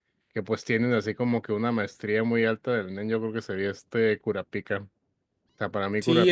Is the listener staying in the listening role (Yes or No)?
No